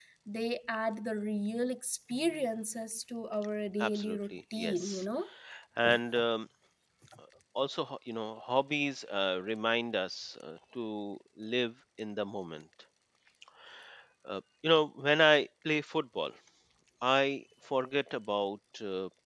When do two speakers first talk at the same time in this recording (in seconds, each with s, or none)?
3.8 s